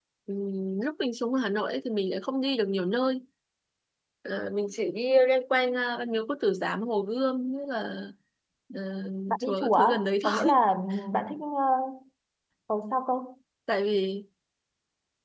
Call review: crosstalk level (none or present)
present